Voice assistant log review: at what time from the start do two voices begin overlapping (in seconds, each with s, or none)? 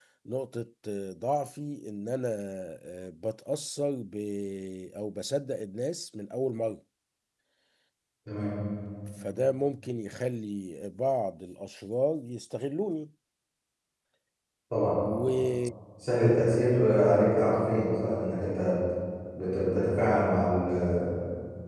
none